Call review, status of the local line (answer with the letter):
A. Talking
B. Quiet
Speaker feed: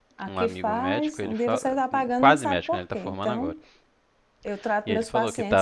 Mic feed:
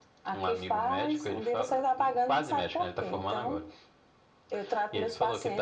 B